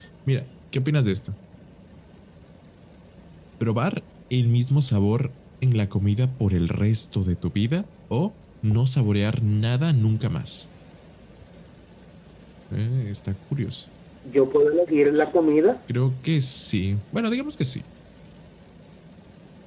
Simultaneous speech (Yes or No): No